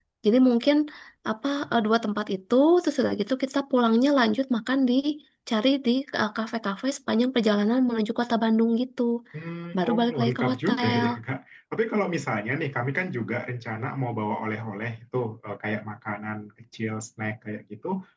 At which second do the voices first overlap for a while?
9.8 s

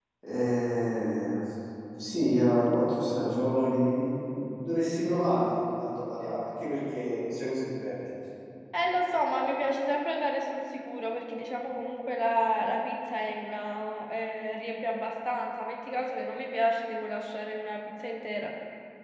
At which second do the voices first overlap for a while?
none

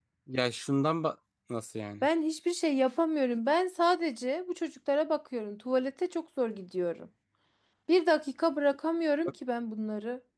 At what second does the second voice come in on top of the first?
none

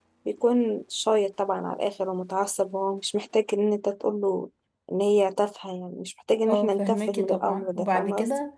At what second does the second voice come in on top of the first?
6.5 s

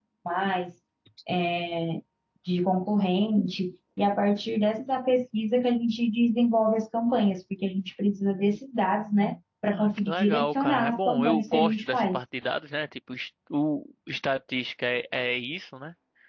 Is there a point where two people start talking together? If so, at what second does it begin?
9.7 s

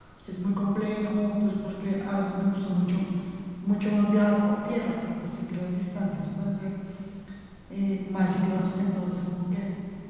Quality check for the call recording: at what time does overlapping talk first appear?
none

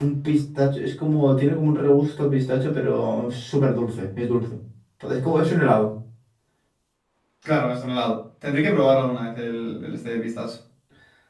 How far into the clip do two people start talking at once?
none

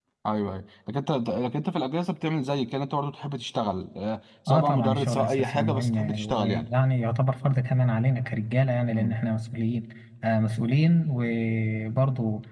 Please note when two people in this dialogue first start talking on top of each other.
4.5 s

